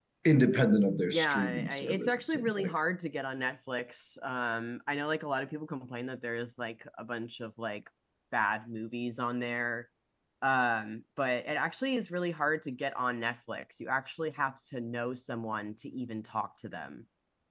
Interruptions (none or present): present